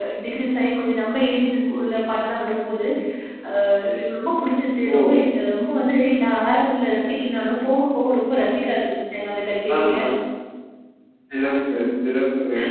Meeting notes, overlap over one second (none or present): none